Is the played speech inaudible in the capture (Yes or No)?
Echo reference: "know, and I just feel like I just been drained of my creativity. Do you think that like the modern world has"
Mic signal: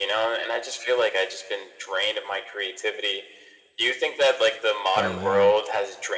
No